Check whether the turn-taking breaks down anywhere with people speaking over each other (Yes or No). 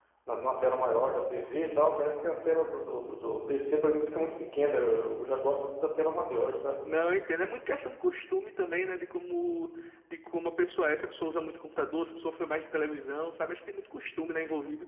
No